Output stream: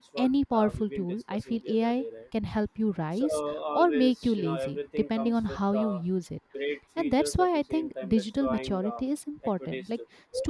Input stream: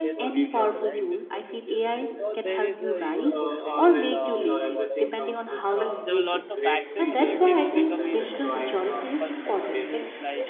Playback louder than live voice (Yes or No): Yes